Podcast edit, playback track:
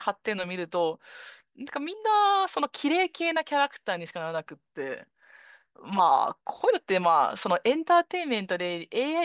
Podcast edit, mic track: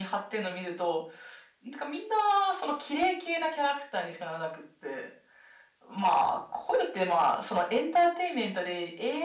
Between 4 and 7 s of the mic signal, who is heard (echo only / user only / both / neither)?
echo only